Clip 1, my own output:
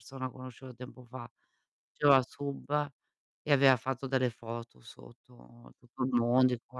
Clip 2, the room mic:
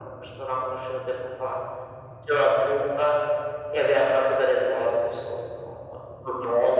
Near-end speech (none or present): none